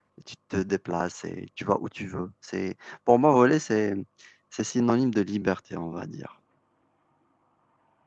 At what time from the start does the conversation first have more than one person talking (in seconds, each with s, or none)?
none